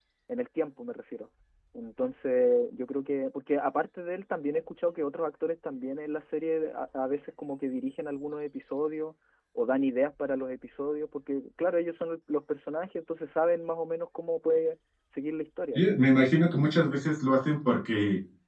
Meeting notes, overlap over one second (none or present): none